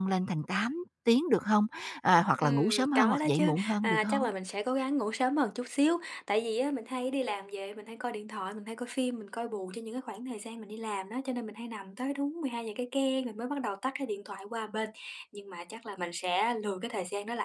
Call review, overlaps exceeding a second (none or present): present